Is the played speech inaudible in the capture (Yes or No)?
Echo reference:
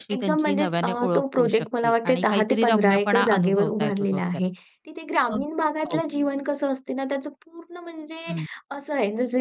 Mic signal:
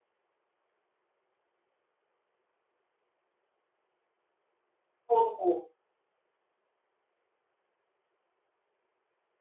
Yes